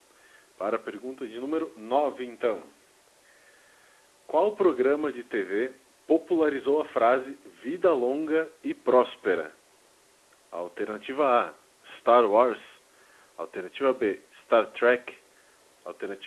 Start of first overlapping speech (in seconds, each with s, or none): none